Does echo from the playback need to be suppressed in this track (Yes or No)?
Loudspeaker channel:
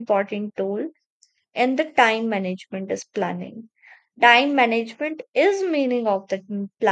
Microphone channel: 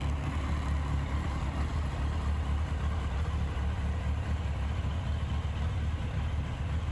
No